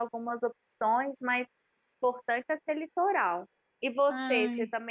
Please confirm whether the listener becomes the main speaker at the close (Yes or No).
No